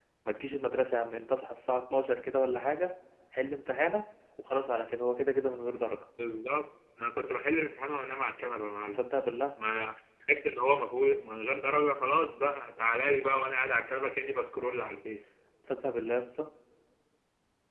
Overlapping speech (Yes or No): No